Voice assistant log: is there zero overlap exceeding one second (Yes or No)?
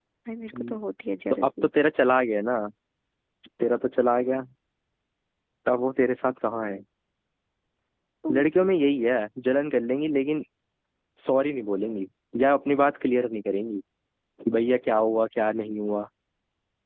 Yes